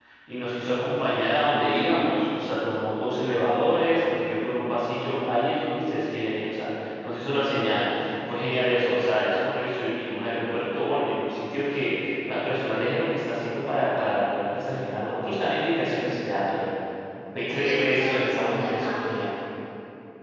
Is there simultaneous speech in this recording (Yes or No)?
Yes